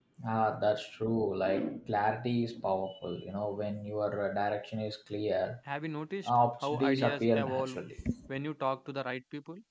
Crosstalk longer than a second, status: present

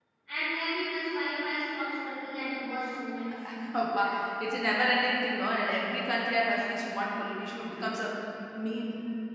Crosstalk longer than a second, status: none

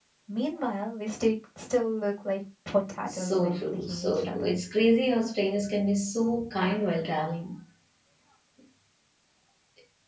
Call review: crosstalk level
present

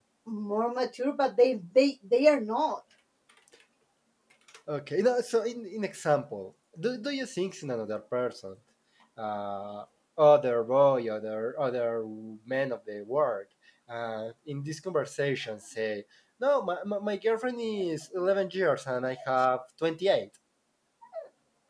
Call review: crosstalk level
none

